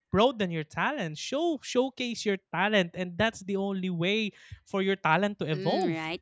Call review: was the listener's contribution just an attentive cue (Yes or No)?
No